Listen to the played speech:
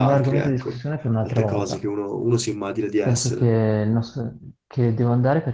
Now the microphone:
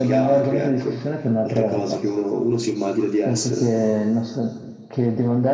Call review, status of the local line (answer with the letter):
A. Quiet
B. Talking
A